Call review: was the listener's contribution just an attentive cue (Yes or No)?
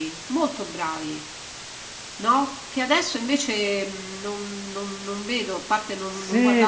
No